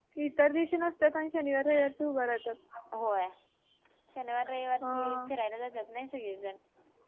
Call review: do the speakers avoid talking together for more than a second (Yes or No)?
Yes